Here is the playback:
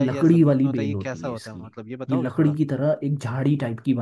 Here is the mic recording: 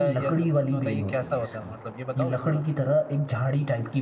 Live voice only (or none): none